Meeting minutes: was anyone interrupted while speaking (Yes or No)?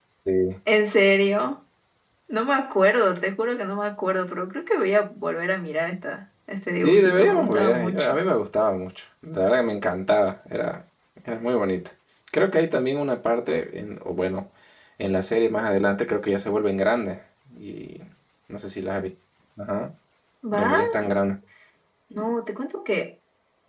Yes